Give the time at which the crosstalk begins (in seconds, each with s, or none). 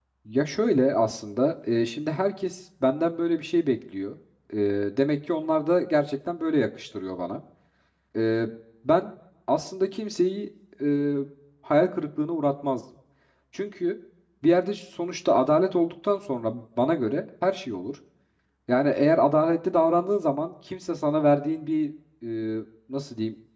none